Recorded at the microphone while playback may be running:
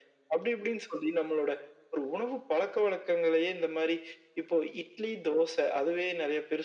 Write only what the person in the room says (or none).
none